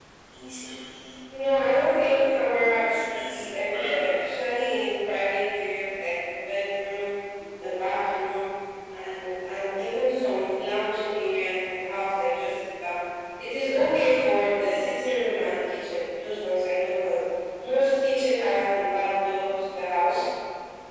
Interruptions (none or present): present